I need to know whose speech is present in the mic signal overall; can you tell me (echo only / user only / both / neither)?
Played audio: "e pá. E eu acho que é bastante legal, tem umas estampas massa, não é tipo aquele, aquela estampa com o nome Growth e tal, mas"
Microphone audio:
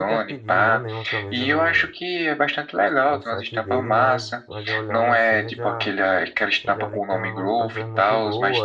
both